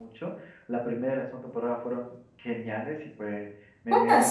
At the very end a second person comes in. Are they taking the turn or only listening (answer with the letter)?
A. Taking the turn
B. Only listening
B